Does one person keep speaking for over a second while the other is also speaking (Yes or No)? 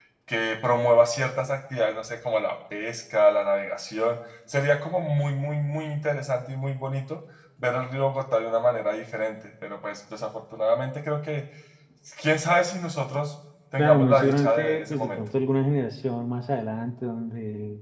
Yes